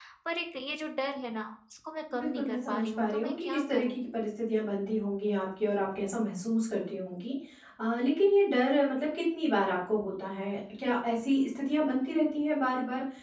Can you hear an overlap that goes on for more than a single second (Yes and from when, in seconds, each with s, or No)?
Yes, from 2.1 s